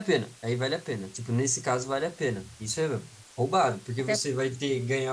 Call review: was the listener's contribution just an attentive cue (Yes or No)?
Yes